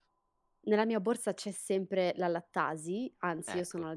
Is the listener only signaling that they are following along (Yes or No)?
Yes